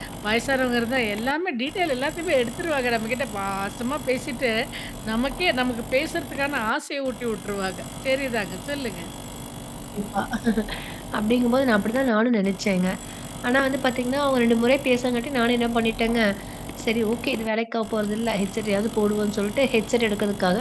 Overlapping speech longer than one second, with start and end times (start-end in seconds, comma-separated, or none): none